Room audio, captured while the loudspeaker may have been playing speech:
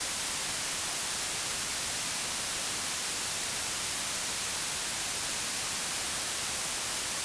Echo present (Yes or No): No